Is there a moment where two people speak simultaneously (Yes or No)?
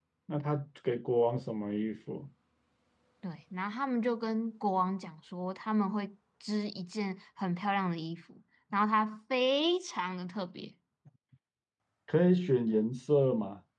No